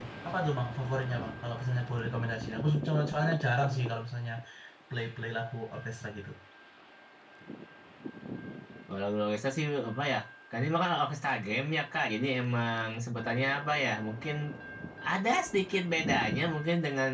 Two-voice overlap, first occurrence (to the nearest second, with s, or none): none